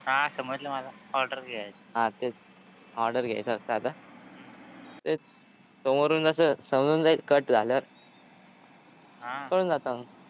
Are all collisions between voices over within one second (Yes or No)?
Yes